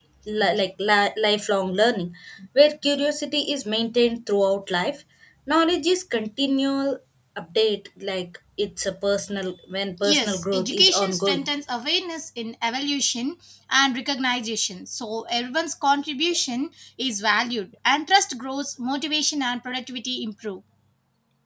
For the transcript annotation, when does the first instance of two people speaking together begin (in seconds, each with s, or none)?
10.0 s